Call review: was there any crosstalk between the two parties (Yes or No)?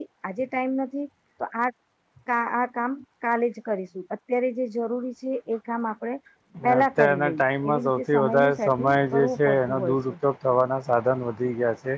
Yes